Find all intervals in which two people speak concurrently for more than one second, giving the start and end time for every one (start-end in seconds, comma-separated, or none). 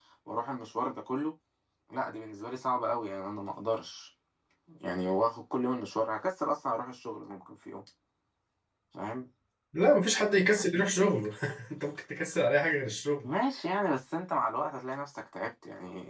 none